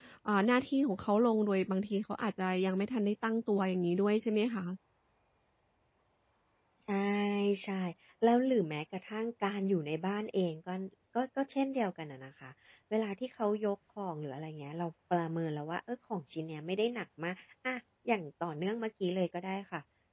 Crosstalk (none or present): none